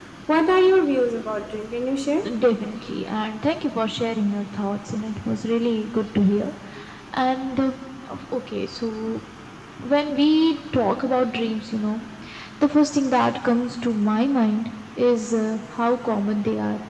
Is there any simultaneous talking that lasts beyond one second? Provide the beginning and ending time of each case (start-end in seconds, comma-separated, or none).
none